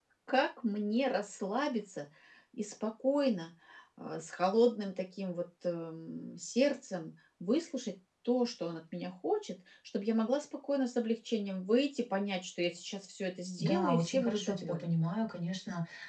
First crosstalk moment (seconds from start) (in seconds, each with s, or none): 13.6 s